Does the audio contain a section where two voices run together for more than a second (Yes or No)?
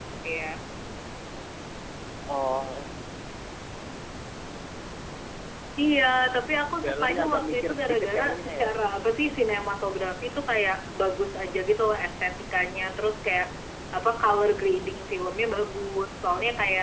Yes